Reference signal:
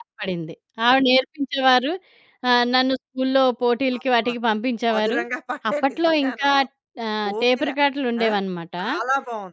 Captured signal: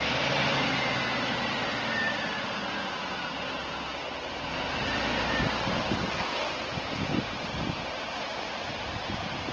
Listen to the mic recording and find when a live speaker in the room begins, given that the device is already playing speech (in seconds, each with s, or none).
none